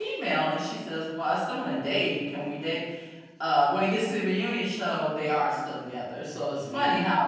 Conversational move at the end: listening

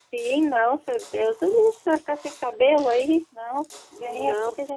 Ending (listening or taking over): taking over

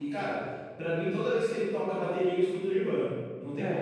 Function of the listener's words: taking over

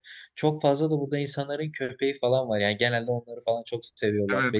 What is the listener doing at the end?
taking over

